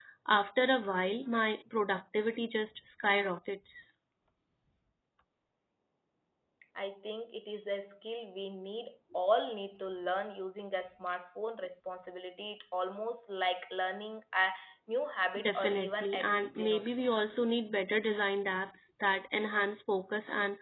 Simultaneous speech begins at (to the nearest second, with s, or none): 15 s